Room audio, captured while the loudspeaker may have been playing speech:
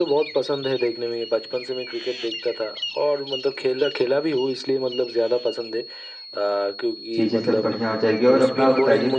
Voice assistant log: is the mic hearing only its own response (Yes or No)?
No